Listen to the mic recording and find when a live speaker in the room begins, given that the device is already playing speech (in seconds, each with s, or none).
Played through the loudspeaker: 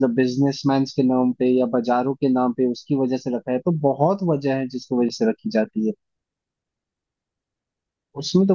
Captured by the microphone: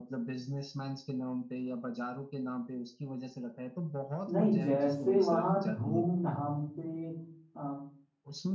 4.3 s